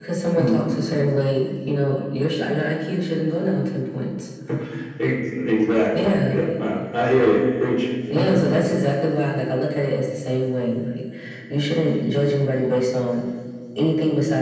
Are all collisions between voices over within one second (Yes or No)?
Yes